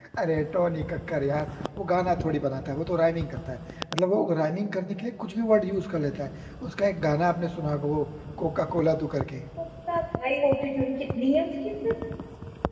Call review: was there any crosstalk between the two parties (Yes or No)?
No